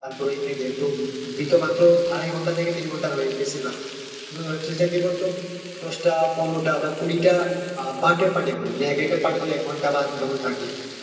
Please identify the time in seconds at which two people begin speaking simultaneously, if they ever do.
none

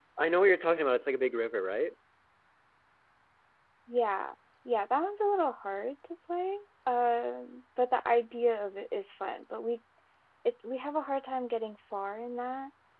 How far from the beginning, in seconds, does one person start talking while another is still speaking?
none

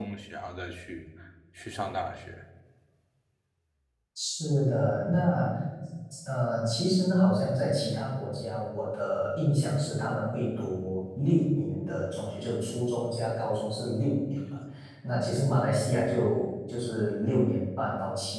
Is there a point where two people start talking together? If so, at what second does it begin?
none

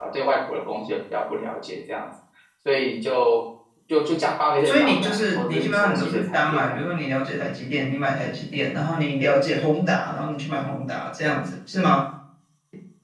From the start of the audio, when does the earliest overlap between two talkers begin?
4.6 s

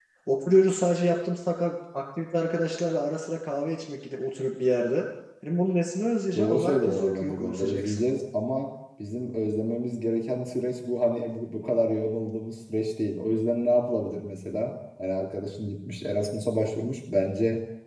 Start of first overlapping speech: 6.4 s

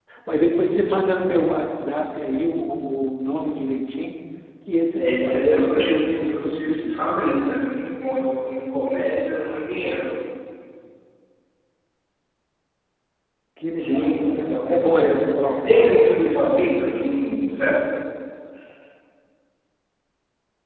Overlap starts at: 5.0 s

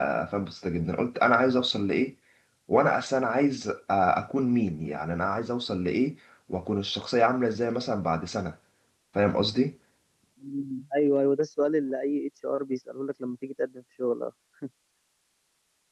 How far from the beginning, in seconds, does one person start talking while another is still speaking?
none

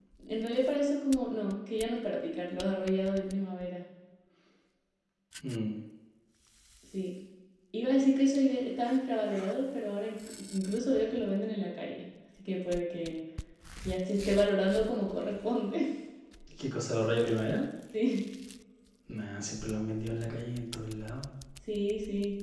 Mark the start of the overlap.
none

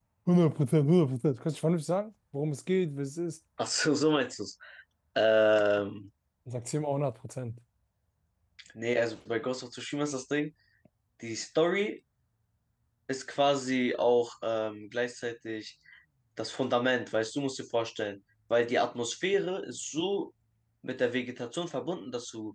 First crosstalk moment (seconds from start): none

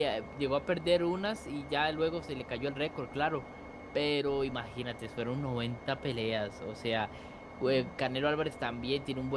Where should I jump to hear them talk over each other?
none

